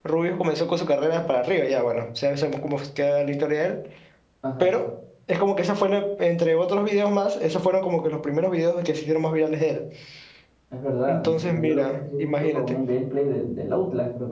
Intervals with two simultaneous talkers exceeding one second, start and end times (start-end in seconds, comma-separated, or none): 11.1-12.8